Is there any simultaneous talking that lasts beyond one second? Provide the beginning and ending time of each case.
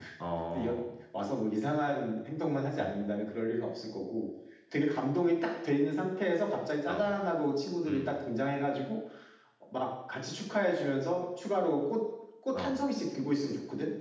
none

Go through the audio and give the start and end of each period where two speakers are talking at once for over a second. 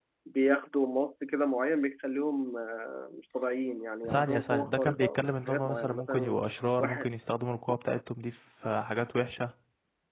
4.1-6.4

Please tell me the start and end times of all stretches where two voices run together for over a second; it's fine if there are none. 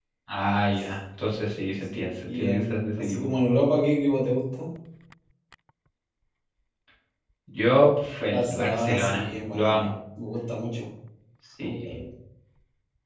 1.9-3.3, 8.3-9.9

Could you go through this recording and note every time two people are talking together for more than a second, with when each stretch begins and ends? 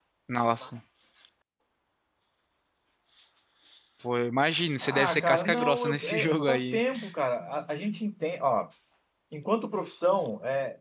4.8-6.8

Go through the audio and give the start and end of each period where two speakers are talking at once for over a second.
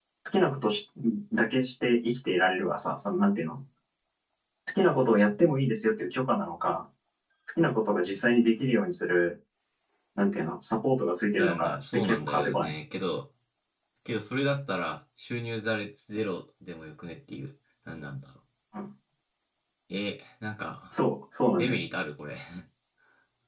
11.4-12.7

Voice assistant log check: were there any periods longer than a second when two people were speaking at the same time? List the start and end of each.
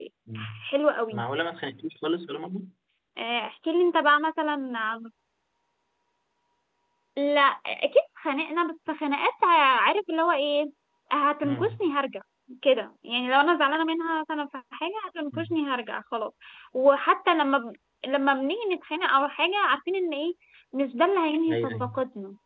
none

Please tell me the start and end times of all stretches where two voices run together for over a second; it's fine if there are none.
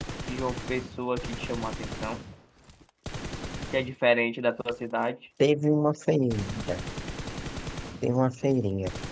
none

